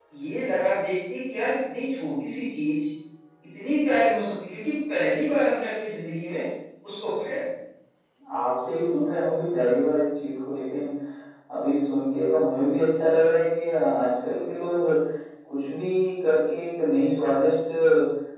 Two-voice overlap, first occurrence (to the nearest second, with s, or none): none